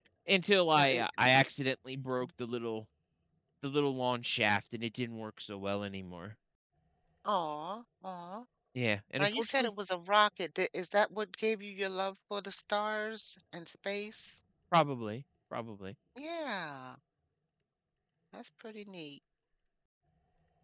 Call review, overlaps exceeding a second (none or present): none